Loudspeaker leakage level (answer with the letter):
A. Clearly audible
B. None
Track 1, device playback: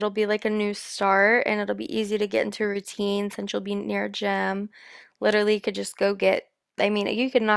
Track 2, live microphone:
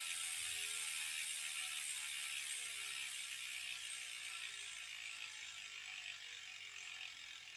B